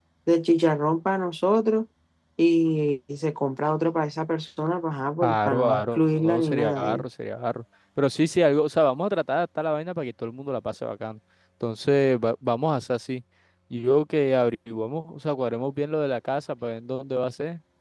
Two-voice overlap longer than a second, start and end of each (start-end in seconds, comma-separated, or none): 5.2-7.0